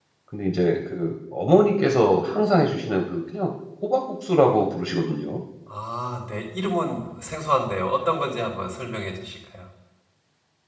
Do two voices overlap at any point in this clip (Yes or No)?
No